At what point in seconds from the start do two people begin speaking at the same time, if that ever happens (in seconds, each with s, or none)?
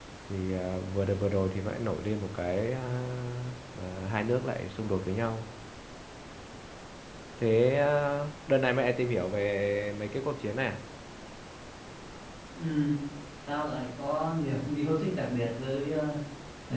none